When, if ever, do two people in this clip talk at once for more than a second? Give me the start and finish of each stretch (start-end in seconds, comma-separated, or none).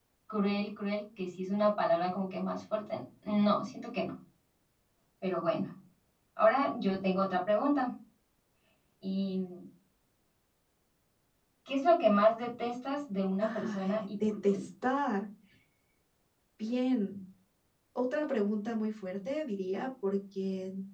13.4-14.6